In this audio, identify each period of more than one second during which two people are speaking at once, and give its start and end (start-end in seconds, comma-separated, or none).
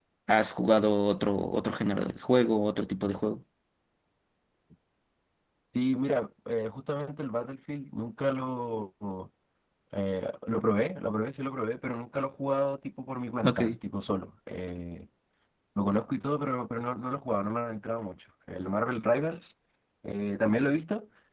none